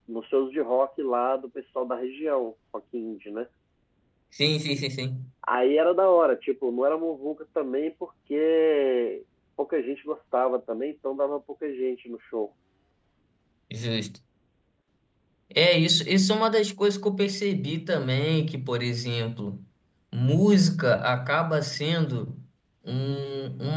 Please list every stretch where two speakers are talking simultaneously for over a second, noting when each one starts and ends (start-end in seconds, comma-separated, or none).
none